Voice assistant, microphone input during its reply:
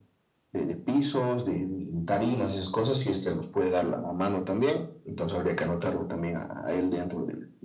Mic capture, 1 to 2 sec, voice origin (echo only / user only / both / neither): echo only